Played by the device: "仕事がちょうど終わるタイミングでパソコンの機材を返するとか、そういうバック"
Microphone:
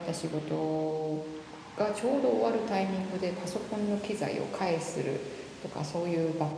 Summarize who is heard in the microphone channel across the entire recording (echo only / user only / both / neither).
echo only